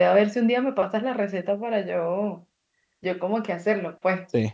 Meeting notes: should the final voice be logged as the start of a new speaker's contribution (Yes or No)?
Yes